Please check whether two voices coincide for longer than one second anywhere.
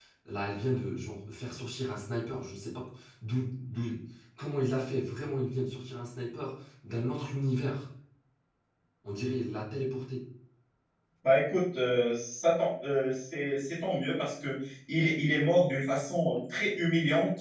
No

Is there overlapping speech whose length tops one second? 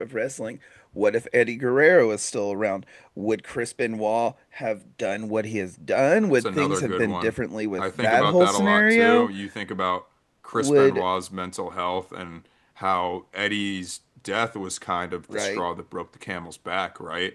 Yes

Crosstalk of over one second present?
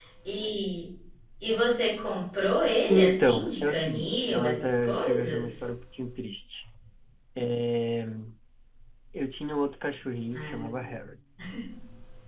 Yes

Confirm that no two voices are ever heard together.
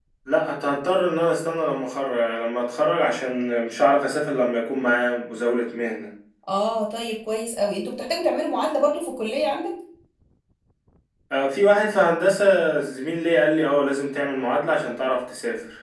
Yes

